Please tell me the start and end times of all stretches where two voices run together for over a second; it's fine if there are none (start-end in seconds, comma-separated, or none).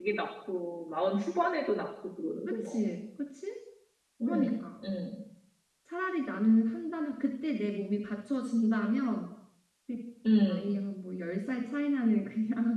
none